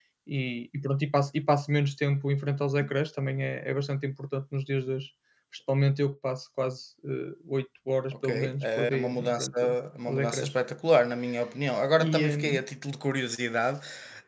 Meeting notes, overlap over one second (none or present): present